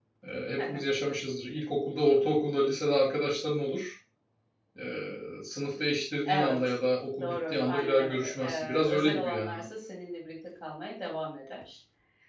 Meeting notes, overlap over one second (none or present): present